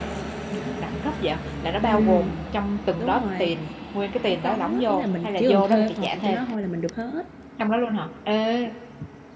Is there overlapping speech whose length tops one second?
Yes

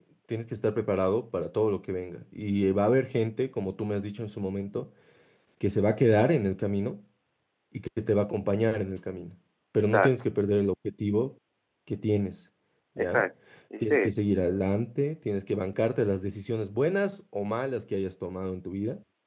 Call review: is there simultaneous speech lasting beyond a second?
No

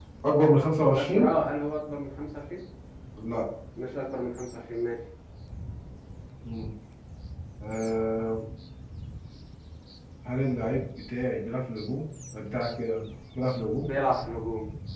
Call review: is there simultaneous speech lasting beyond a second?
No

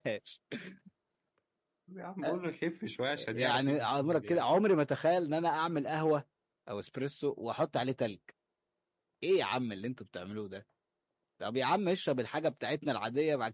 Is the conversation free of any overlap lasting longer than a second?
No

